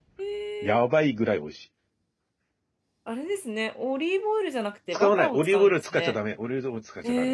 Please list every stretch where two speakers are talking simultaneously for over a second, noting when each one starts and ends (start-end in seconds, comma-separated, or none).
4.9-6.2